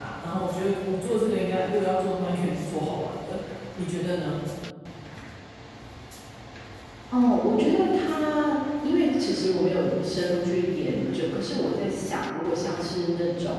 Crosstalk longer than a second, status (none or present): none